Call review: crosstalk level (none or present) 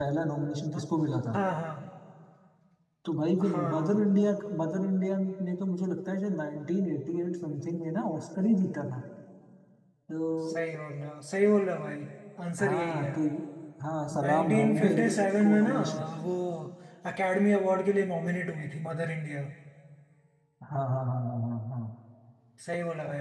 present